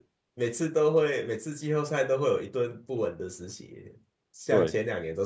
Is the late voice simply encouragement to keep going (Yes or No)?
Yes